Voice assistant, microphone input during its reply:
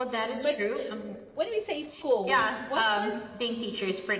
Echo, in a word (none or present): present